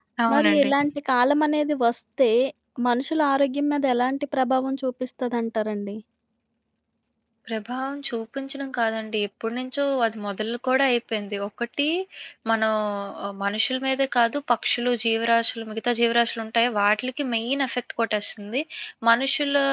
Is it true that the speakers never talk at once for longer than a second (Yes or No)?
Yes